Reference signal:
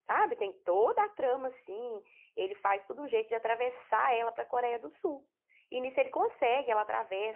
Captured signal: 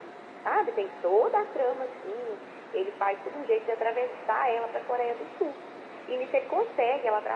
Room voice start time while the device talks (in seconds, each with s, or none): none